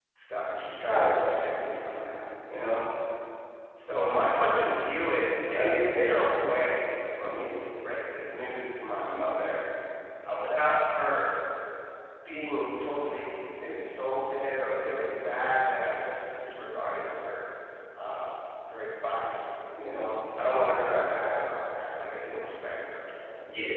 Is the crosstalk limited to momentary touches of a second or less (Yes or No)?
Yes